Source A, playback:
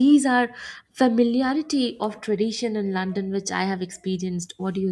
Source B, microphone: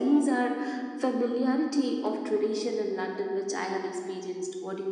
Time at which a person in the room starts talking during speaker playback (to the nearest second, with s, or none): none